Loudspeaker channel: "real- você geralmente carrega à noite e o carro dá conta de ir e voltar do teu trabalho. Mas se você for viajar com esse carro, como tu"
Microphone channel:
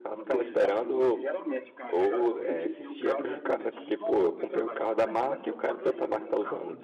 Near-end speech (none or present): present